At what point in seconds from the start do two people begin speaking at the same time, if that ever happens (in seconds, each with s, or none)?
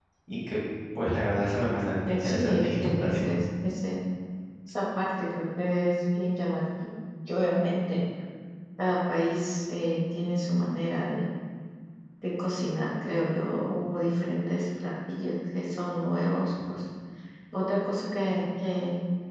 2.0 s